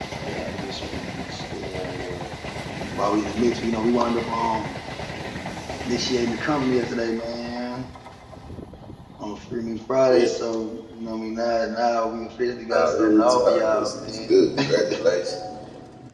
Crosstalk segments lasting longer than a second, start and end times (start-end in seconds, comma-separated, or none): 12.8-14.4